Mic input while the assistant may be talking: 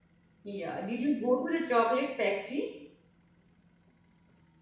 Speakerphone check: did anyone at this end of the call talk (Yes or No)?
Yes